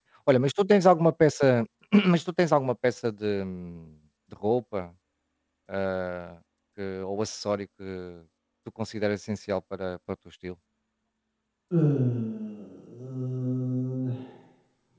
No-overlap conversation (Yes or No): Yes